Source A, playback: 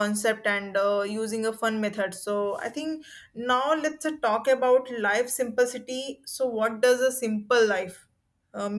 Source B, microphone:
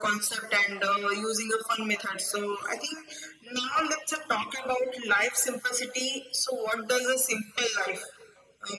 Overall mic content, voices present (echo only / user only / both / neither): echo only